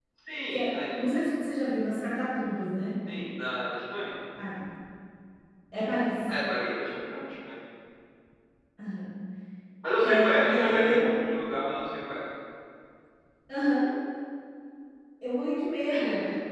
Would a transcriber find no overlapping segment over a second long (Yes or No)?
No